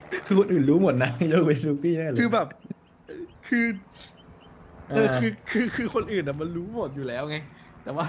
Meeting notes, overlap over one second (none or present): none